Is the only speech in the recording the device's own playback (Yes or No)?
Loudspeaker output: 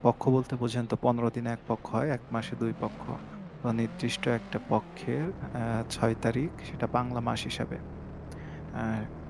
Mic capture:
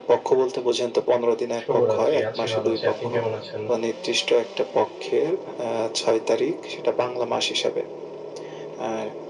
No